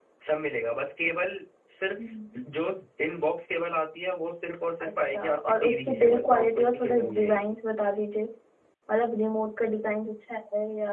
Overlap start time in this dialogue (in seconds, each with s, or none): 4.8 s